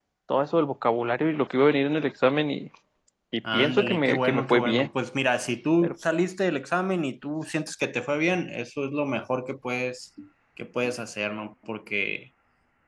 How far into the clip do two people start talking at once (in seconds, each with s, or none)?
3.5 s